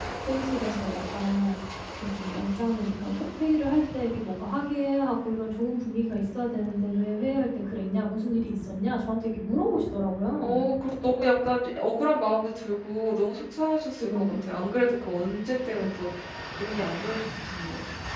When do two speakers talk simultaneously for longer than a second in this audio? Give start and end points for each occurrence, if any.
none

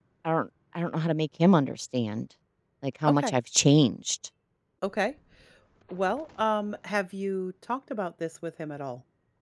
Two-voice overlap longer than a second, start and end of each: none

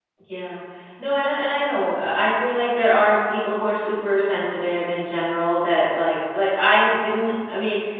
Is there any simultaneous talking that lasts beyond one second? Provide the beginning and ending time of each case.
none

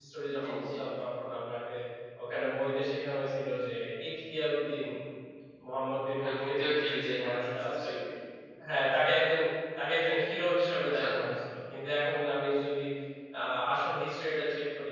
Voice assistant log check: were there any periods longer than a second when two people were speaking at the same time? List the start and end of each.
6.2-7.9

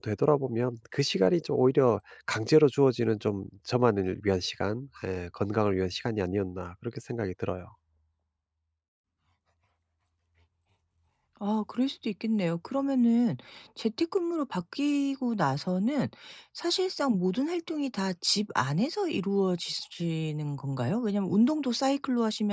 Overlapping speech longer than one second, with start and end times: none

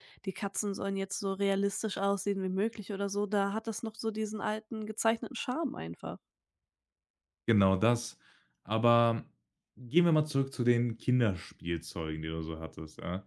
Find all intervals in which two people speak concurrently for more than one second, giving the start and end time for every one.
none

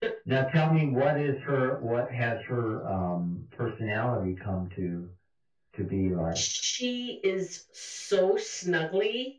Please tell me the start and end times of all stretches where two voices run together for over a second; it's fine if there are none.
none

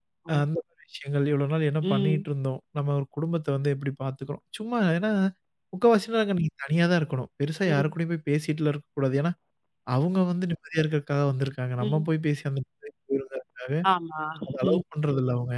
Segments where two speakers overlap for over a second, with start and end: none

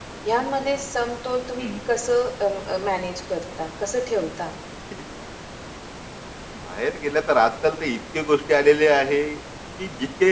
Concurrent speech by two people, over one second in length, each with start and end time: none

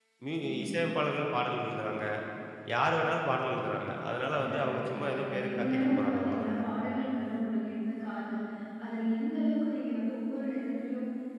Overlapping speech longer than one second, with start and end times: 4.5-6.6

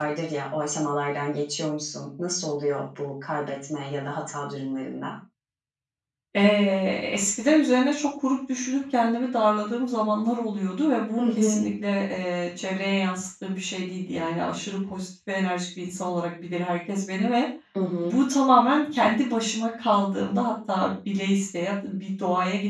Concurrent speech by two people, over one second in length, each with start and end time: none

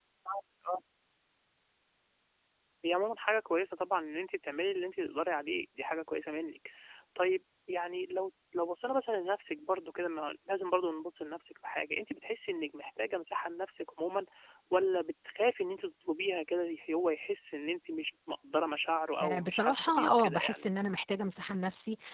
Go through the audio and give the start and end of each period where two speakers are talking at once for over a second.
19.2-20.7

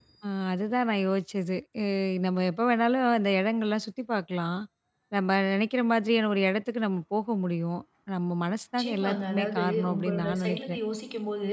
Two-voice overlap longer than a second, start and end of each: 8.8-10.8

